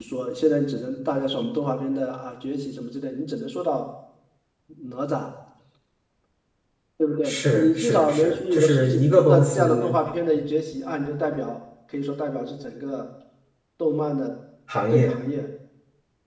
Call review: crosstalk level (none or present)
present